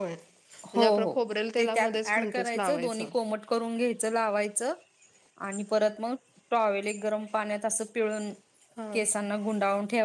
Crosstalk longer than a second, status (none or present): present